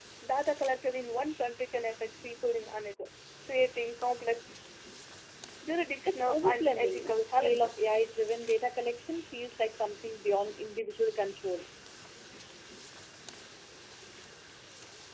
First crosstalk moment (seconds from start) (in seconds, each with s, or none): 6.0 s